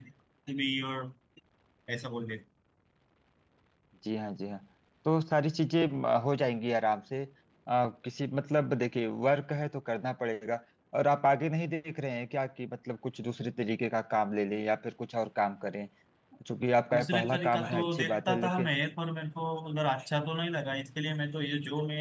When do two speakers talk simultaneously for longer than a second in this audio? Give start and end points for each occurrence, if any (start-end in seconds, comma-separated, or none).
16.9-18.7